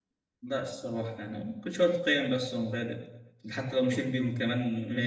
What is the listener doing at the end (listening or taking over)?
listening